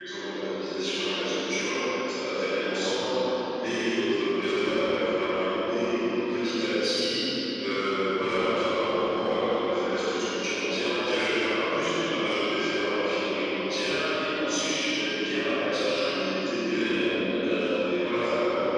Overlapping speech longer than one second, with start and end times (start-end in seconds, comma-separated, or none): none